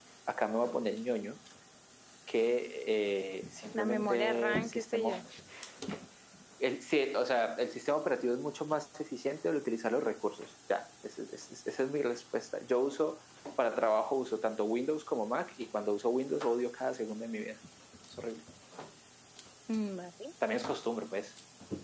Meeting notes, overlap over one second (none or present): present